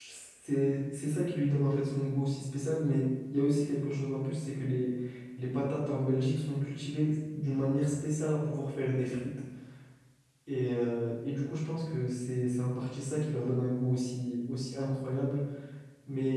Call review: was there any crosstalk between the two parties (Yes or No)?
No